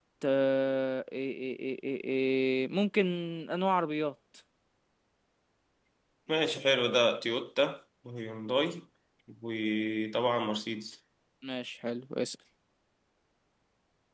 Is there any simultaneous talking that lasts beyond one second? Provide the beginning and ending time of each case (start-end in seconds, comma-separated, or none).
none